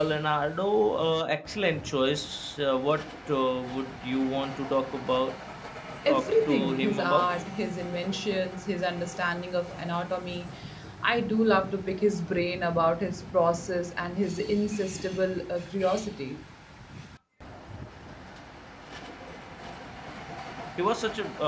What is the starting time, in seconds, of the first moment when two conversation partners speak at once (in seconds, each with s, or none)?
6.1 s